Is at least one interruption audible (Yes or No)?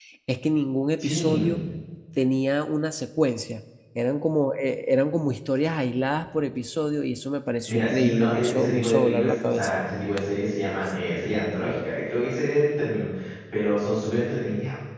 Yes